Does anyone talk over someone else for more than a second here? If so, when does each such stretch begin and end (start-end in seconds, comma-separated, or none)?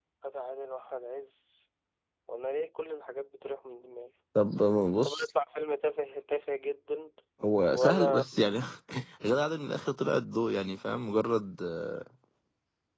none